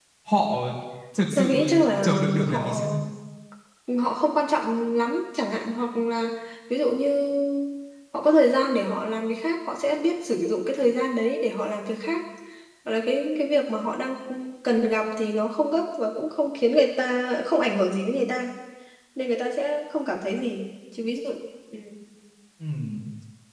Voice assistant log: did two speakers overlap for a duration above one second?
Yes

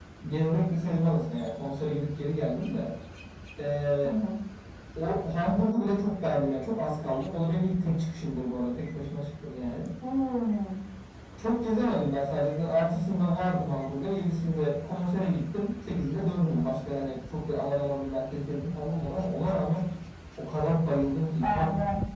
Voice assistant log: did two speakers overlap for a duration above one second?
No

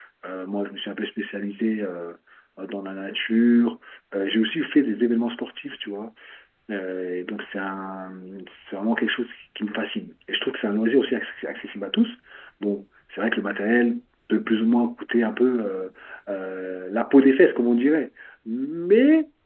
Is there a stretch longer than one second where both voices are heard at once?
No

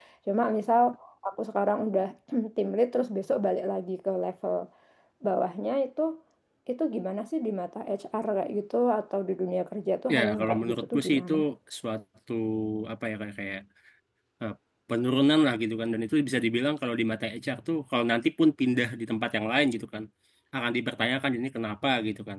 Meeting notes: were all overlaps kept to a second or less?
No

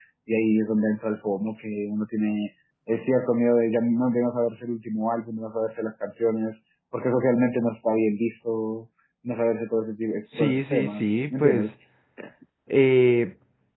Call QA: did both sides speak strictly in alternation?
No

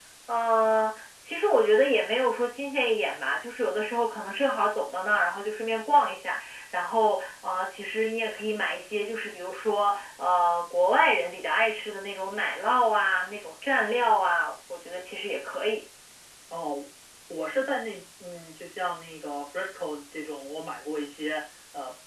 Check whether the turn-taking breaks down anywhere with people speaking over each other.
No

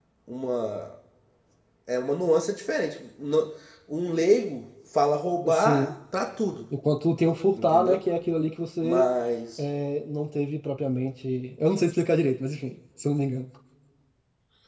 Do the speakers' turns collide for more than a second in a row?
No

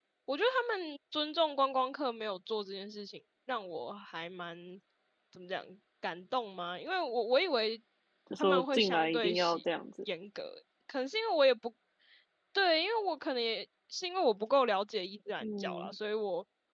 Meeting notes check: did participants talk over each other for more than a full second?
Yes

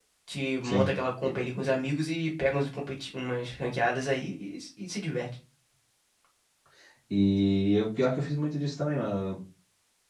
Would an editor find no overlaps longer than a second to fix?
Yes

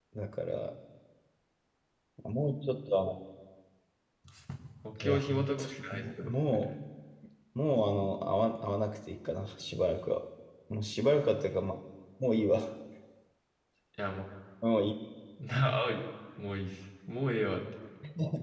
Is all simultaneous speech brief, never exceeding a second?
No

